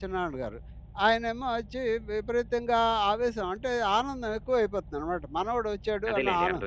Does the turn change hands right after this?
No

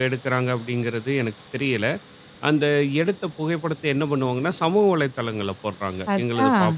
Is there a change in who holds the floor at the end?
No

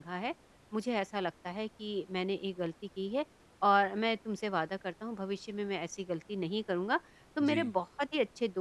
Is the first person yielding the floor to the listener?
No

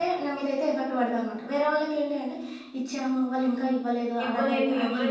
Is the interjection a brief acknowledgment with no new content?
No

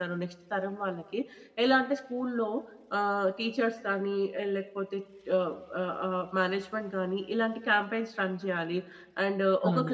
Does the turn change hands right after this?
Yes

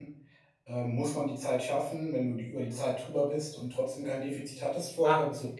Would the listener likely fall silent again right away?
No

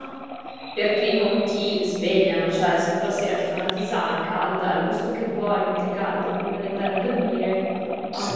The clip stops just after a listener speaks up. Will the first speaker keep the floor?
Yes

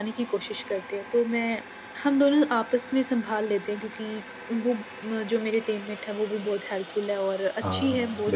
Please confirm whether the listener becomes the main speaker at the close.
No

